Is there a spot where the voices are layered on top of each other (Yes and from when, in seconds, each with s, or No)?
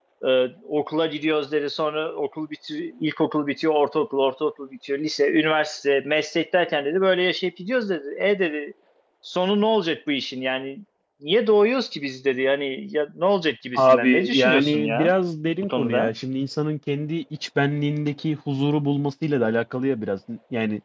Yes, from 13.8 s